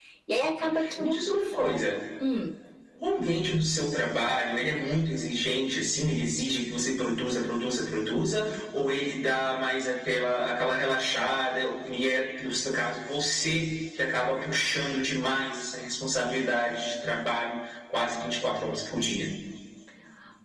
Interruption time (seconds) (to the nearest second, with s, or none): 1 s